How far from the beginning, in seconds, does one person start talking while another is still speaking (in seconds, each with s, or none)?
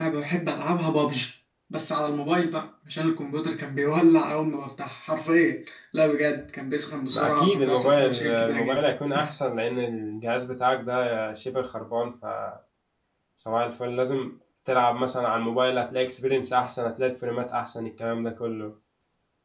7.1 s